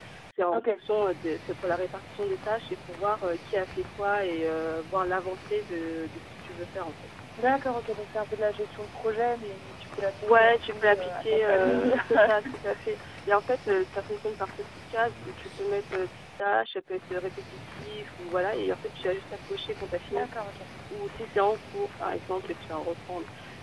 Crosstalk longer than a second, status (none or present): present